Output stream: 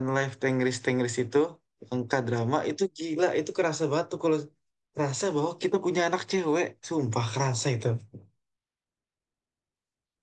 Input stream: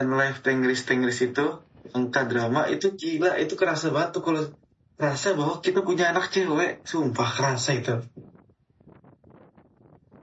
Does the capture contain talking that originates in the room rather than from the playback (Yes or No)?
No